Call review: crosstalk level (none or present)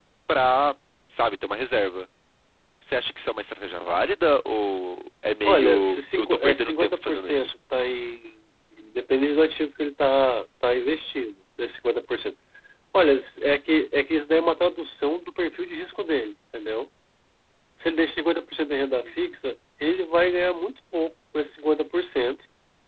present